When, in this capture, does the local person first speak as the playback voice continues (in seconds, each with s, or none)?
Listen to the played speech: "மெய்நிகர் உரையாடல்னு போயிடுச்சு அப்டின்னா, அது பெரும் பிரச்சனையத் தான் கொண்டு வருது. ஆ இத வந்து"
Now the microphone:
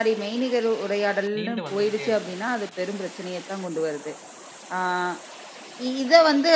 1.4 s